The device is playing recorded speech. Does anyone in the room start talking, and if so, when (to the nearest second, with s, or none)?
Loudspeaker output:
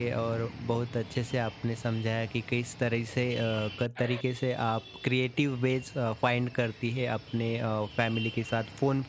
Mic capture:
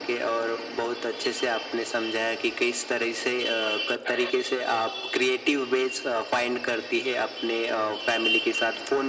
none